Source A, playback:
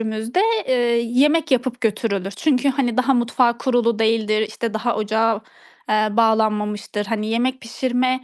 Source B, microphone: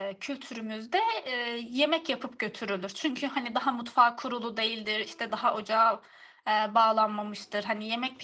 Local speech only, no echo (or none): none